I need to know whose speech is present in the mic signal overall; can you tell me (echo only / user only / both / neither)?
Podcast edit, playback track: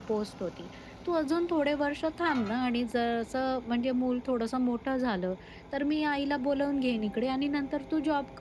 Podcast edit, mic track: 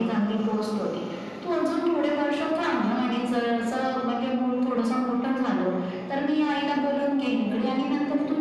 echo only